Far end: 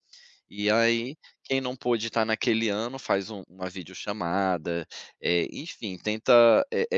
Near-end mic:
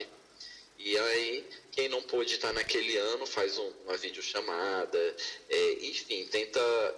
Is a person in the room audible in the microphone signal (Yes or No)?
No